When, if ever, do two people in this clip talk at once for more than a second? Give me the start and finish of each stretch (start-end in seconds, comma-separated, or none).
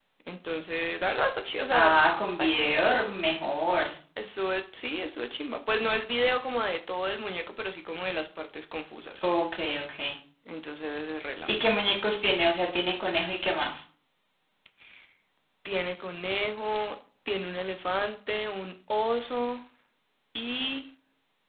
none